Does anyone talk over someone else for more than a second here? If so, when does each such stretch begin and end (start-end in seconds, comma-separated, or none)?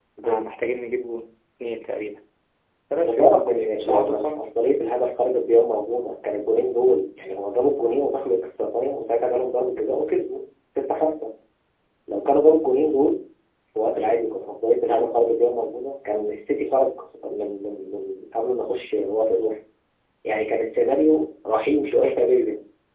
3.0-4.5